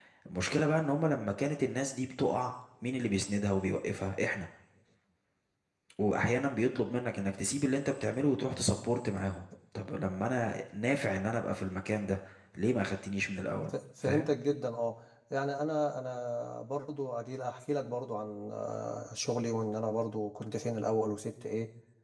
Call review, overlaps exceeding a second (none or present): none